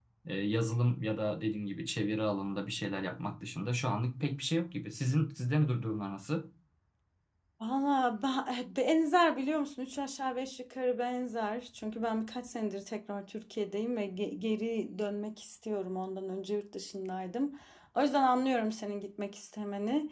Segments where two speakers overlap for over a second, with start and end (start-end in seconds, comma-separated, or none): none